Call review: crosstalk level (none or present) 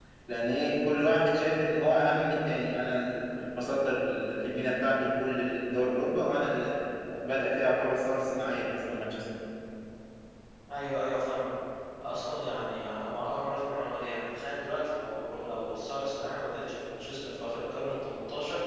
none